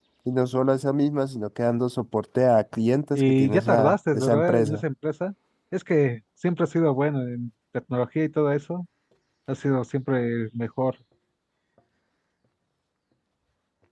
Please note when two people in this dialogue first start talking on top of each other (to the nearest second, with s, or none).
3 s